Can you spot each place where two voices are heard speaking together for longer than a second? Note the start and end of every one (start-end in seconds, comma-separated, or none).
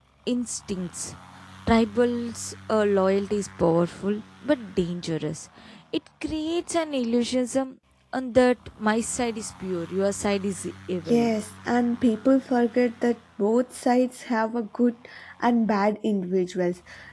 none